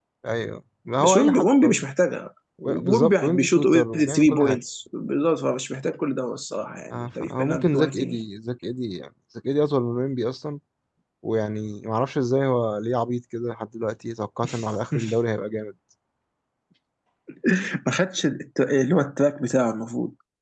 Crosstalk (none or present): present